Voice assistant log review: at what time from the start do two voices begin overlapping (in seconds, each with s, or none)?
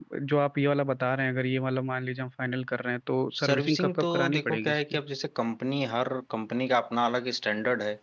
3.4 s